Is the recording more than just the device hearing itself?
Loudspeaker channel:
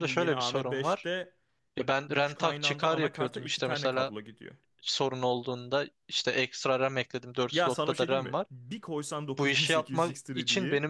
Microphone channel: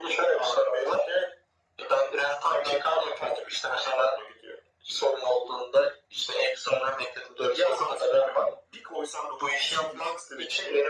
No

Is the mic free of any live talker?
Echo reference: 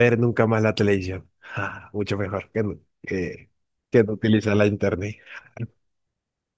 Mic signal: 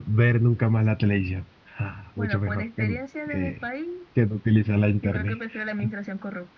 No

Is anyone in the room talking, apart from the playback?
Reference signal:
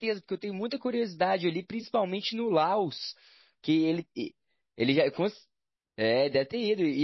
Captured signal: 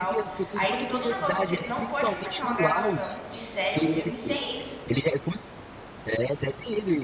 Yes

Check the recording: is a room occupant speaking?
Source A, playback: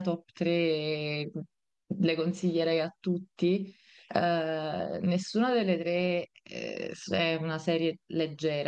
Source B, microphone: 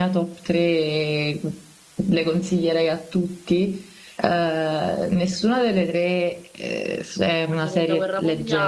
Yes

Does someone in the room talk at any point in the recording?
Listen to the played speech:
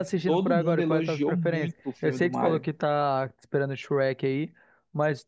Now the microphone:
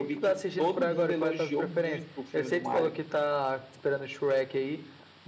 No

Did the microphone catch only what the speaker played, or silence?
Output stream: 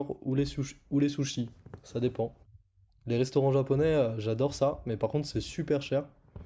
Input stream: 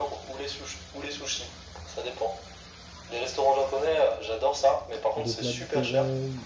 No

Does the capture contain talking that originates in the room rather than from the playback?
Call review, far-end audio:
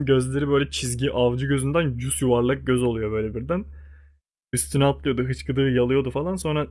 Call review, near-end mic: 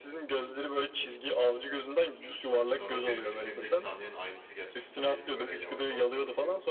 Yes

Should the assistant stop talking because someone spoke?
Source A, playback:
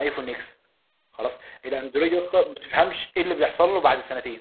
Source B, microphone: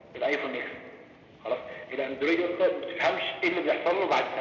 No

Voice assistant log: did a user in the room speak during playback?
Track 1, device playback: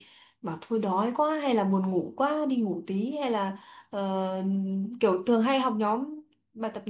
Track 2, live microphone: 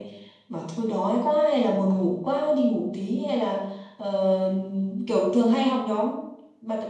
No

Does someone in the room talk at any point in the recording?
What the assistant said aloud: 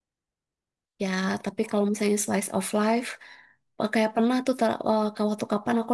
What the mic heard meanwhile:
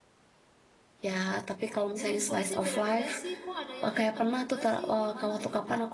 Yes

